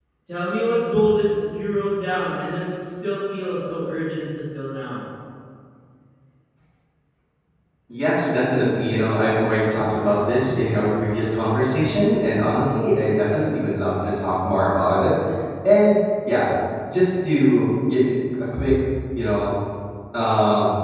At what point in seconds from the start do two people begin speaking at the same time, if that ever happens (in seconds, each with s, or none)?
none